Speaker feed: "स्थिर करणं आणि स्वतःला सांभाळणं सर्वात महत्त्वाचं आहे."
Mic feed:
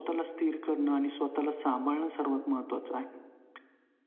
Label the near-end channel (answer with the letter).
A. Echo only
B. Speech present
A